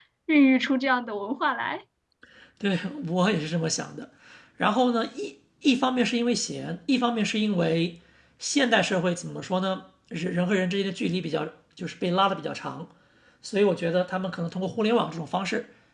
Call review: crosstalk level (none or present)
none